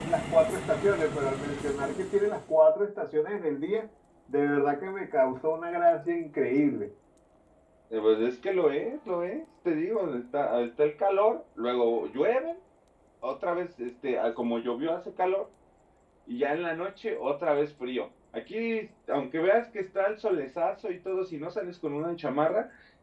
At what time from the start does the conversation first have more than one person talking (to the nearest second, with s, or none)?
none